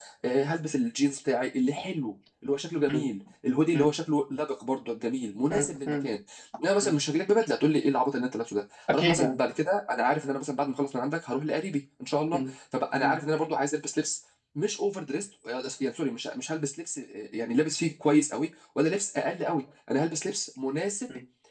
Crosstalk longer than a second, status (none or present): none